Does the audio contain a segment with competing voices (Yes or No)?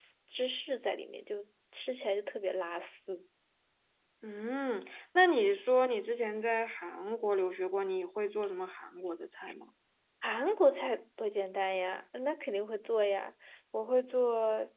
No